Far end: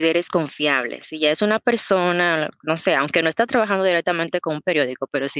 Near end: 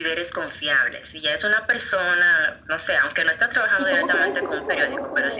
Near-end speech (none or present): present